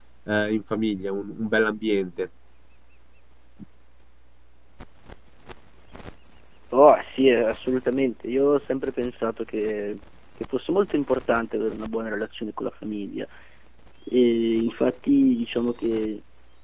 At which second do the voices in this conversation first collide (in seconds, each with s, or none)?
none